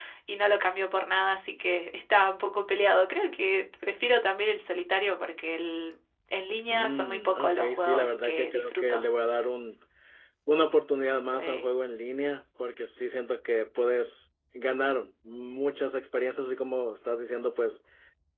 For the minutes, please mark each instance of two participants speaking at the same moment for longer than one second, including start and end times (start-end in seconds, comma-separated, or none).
6.7-9.0